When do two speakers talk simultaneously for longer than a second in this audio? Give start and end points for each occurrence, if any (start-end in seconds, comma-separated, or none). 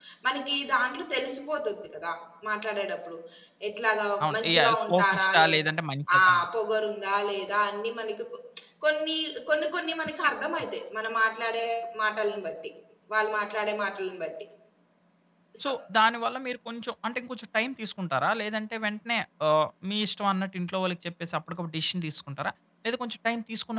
4.3-5.6